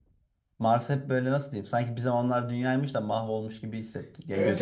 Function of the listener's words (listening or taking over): taking over